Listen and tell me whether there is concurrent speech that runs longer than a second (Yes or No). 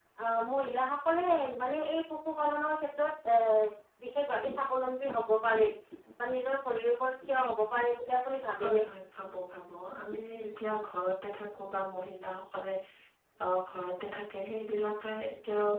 No